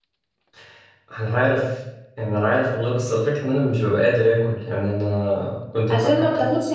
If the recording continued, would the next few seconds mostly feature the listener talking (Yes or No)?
Yes